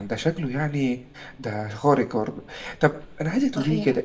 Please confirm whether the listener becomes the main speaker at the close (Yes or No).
No